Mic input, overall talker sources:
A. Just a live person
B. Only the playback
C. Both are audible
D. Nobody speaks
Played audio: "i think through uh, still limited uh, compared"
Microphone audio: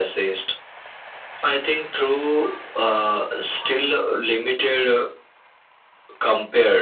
B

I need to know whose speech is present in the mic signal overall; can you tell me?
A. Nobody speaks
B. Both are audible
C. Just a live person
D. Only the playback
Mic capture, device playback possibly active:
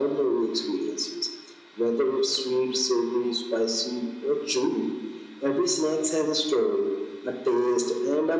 D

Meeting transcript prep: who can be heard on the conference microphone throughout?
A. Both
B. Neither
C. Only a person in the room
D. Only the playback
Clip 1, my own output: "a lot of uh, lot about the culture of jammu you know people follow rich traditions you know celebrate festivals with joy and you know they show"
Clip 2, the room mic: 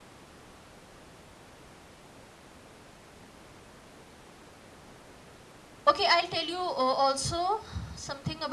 C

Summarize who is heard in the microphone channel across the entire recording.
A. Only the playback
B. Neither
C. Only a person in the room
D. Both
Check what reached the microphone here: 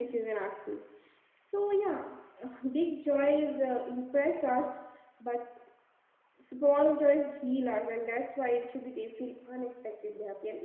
C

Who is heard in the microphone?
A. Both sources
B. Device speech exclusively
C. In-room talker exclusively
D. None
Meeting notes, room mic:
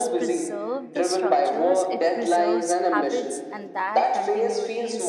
A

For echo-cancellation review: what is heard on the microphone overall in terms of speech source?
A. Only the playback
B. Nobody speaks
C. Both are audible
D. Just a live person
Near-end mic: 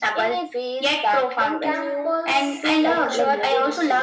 C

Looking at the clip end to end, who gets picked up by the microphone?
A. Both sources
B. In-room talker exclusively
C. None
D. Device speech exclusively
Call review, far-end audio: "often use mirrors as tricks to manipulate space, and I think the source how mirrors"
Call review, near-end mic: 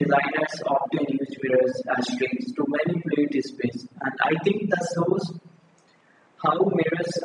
D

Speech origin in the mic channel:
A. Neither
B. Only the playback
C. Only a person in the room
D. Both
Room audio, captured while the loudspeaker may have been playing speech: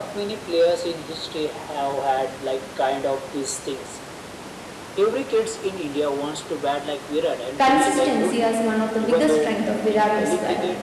D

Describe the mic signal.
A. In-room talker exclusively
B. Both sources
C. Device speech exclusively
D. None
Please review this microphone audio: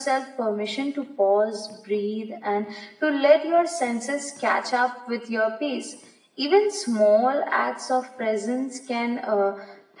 C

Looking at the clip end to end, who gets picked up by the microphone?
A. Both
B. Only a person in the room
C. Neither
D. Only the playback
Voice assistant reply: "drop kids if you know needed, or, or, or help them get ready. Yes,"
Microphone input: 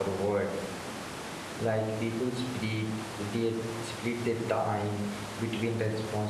B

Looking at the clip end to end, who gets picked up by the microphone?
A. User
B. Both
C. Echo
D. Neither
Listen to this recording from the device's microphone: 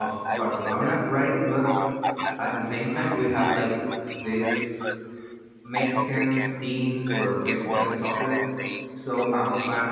B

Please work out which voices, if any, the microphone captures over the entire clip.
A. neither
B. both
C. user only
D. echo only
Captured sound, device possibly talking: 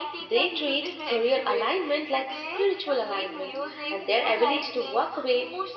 B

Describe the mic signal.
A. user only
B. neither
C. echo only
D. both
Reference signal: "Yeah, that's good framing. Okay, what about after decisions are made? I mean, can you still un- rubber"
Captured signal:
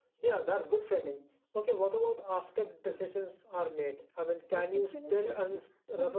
D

